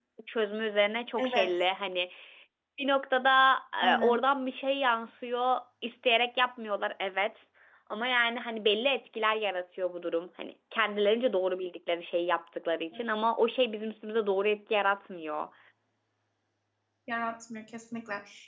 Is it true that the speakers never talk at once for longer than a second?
Yes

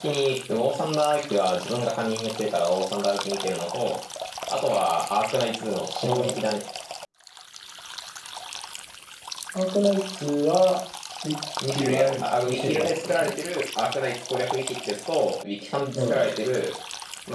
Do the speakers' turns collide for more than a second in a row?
Yes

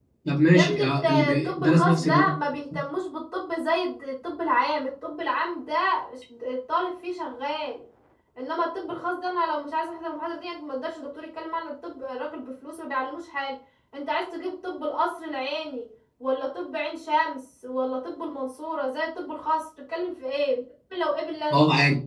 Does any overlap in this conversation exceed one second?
Yes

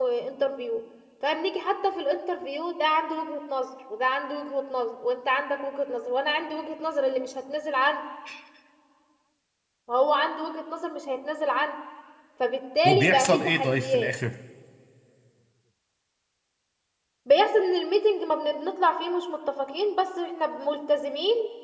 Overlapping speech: Yes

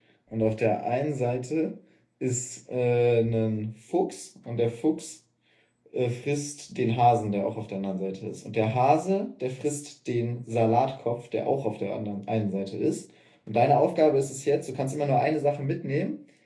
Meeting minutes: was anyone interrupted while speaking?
No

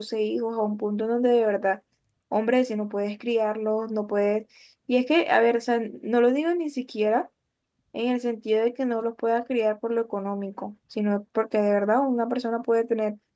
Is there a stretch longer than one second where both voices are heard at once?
No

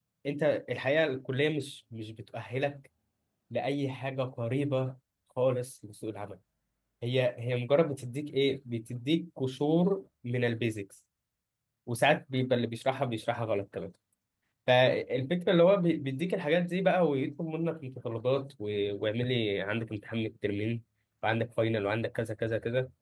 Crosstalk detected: No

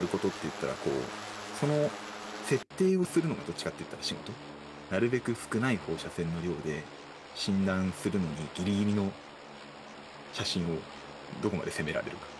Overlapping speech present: No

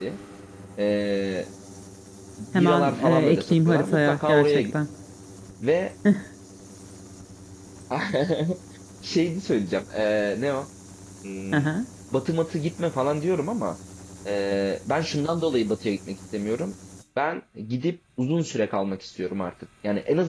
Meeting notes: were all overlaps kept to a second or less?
No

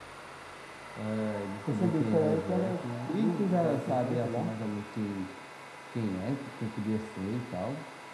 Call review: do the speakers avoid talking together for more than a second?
No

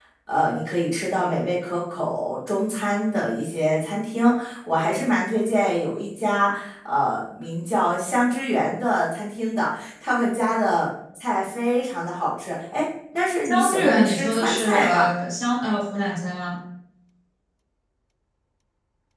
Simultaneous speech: Yes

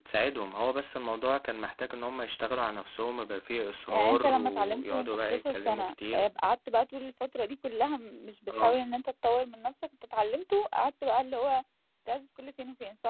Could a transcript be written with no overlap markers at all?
No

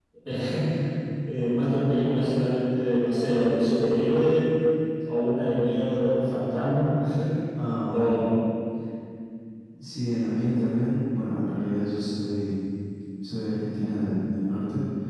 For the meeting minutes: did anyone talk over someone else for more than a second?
No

